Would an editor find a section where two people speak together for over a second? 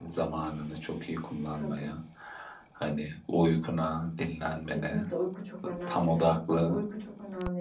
No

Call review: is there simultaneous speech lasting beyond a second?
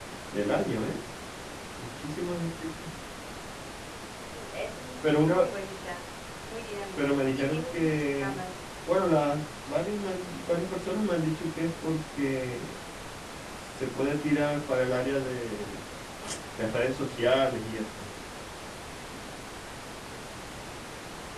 Yes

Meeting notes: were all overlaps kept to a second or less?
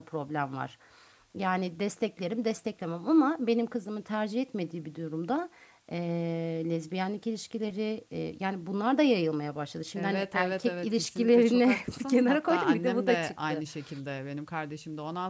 No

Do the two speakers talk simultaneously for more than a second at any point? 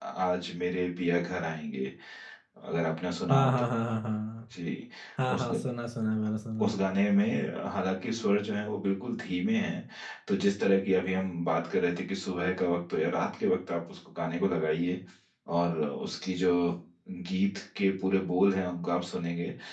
No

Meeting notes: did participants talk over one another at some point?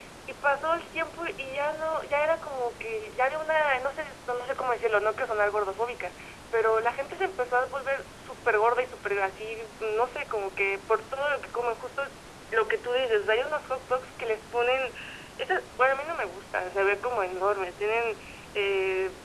No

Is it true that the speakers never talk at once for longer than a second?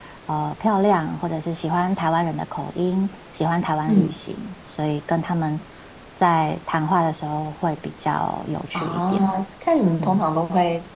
Yes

